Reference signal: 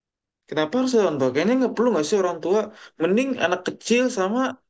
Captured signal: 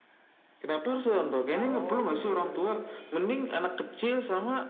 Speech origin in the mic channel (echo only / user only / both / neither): both